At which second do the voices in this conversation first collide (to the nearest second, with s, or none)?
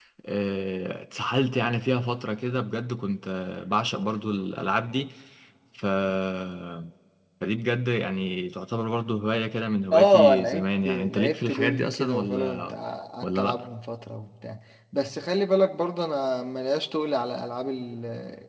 10 s